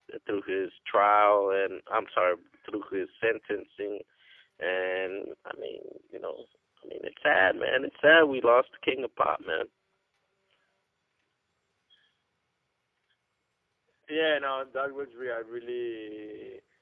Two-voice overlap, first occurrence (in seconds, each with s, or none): none